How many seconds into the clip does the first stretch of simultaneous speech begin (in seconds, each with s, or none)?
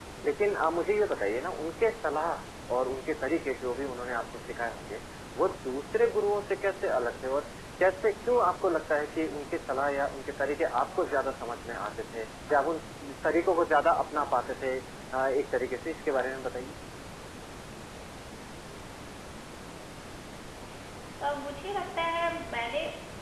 none